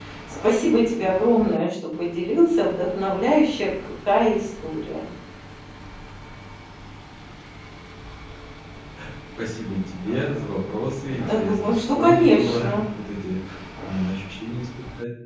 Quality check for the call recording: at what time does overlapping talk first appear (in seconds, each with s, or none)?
11.1 s